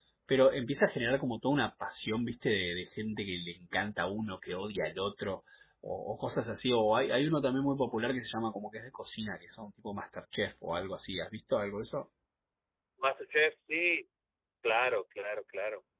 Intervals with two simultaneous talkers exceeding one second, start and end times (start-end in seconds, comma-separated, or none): none